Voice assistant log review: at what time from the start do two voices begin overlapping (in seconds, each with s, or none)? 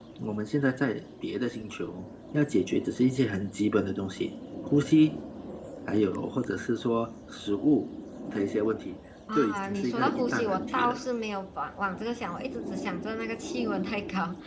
9.3 s